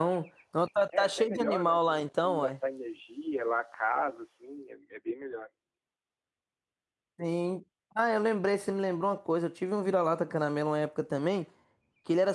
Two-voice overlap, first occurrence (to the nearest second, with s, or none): 1 s